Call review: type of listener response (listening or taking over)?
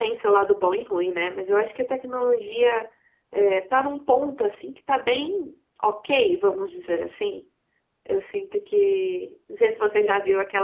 listening